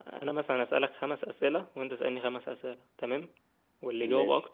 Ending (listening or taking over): listening